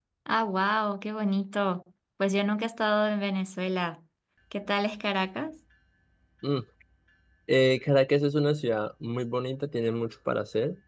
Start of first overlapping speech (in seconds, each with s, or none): none